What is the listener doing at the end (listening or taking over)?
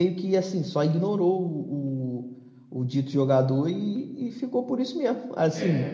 listening